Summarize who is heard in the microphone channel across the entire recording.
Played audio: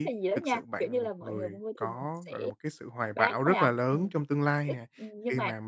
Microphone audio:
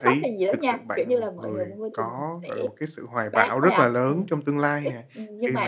echo only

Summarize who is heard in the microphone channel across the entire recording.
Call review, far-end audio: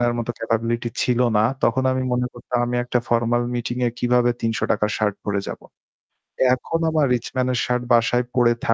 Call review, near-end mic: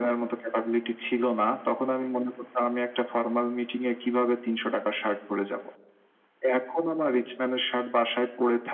echo only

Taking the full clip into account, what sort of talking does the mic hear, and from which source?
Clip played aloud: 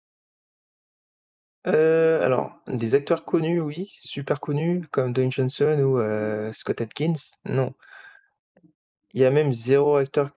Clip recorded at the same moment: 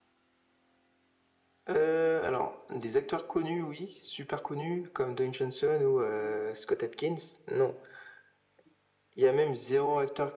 echo only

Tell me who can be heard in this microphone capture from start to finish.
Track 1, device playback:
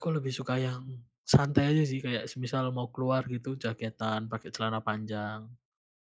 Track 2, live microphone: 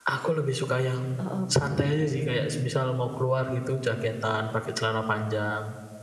both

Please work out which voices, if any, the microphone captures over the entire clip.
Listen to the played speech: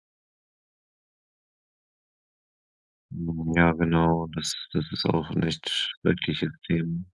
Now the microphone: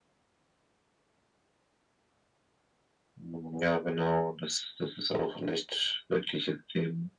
echo only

